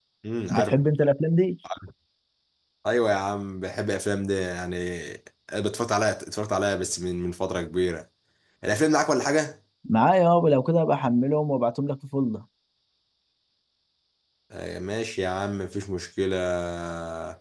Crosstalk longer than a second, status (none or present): none